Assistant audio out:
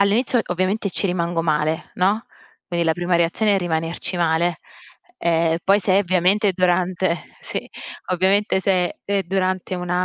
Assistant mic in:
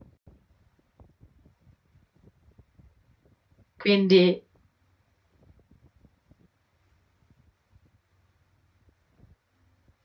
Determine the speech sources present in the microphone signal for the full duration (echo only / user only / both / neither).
user only